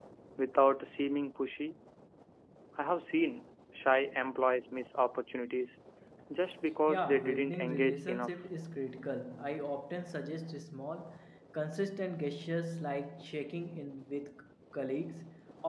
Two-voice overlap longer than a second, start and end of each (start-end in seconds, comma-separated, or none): 6.9-8.3